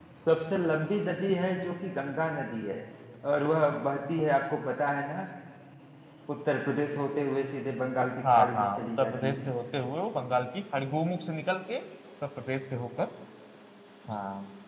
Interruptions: present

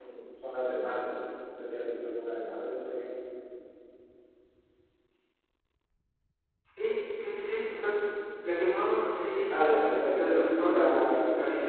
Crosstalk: present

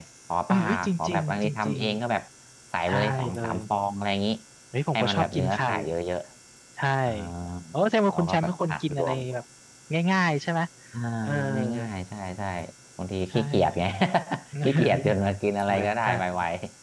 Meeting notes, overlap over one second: present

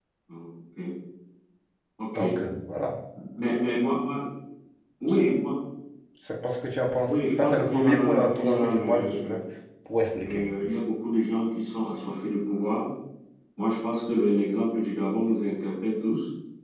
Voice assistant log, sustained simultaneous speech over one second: present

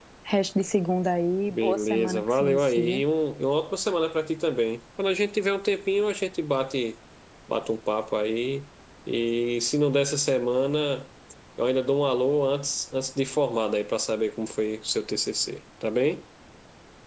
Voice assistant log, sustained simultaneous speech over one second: present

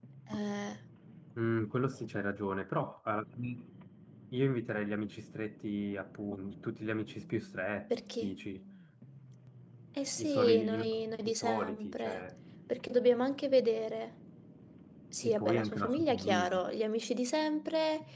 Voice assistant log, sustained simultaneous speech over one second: present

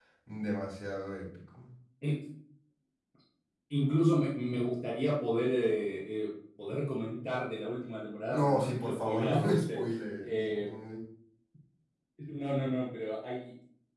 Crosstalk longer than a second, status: present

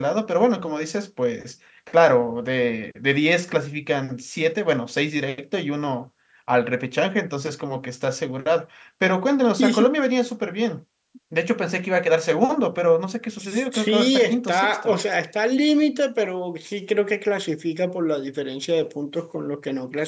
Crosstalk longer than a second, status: present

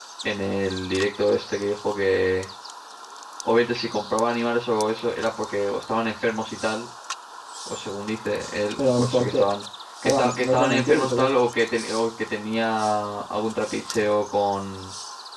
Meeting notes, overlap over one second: present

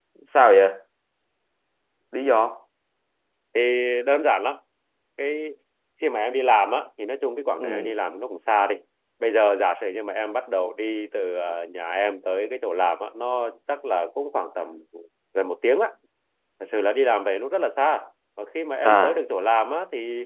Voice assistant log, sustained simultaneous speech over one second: none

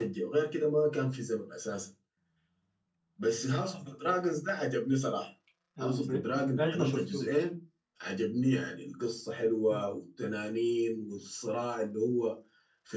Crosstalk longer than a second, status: present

